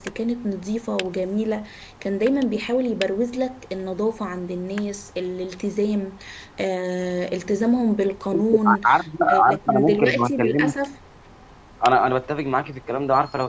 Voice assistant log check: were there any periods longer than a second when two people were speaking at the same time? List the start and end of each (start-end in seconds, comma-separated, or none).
9.4-10.7